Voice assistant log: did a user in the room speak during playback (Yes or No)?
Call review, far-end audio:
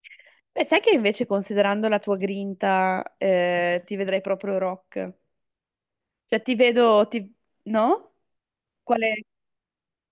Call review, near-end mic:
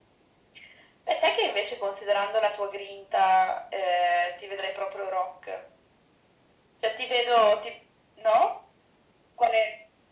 No